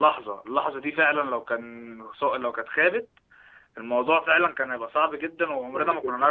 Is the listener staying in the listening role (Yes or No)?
No